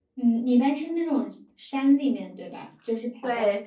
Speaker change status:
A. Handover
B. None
A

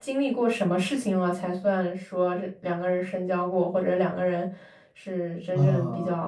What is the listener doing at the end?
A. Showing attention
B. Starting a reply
B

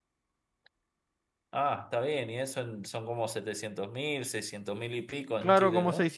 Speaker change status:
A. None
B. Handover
B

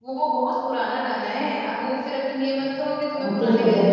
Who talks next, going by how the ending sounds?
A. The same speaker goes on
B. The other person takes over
B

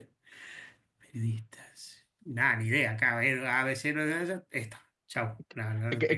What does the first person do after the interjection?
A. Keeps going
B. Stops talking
B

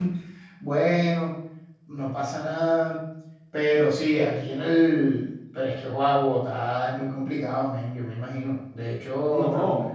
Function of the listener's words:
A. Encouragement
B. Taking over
A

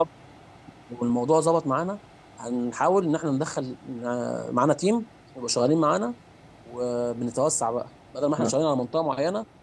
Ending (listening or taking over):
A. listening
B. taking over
A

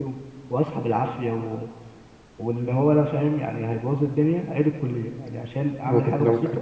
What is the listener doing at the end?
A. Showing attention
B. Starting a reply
B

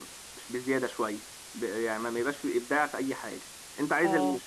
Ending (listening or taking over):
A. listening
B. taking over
A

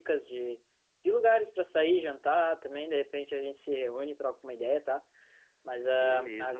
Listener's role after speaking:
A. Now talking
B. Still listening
B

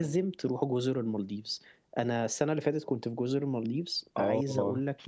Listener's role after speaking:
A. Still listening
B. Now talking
A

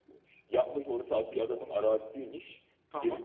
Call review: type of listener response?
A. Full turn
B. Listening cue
B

